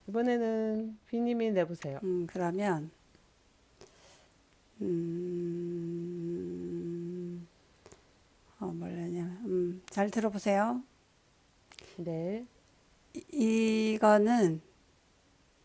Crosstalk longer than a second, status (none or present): none